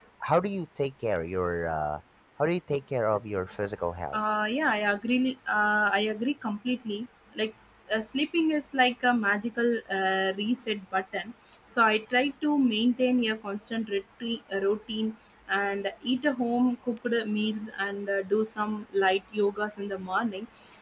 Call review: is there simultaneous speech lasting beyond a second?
No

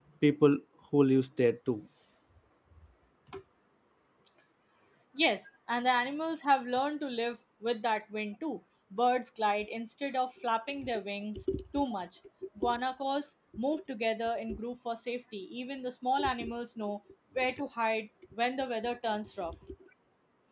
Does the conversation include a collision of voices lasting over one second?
No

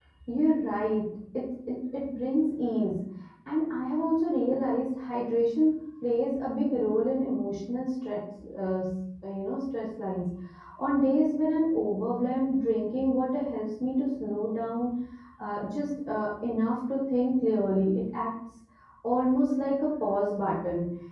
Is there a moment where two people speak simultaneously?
No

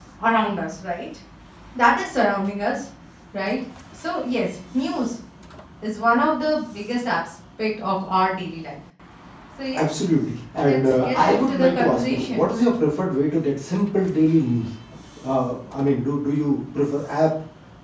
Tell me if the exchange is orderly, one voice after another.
No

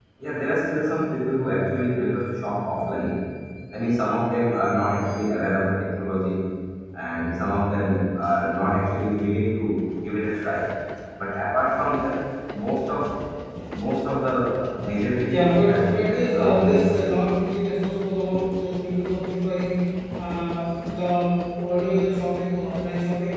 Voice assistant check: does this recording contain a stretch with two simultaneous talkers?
Yes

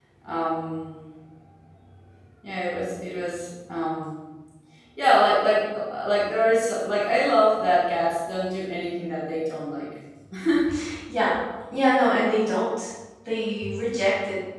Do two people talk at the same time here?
No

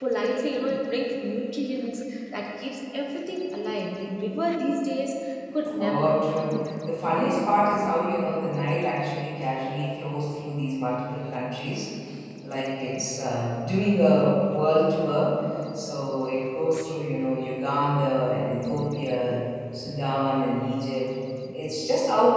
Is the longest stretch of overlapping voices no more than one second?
Yes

